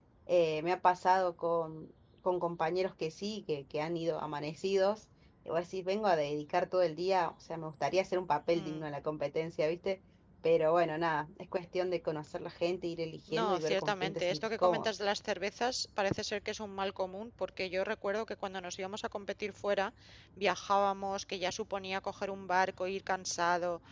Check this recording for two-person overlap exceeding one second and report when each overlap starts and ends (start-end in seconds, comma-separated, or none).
13.4-14.9